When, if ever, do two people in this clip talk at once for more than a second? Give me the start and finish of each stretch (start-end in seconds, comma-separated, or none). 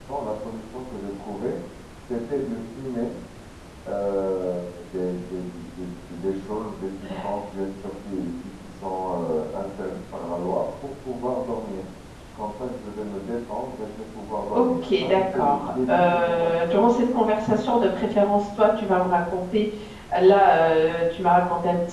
14.5-16.9